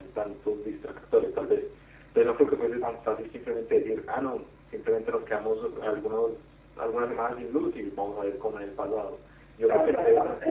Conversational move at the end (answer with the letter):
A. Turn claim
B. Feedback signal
A